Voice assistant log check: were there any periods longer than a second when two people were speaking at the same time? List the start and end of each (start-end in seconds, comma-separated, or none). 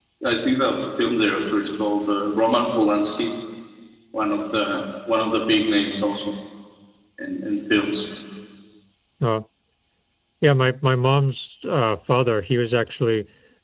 none